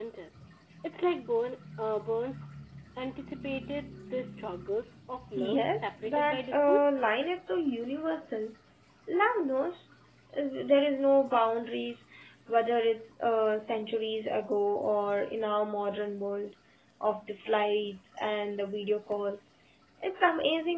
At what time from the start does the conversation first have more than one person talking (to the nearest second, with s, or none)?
5 s